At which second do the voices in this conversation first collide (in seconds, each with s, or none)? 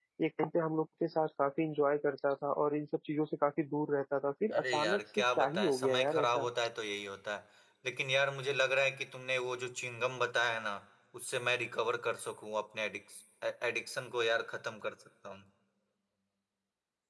4.5 s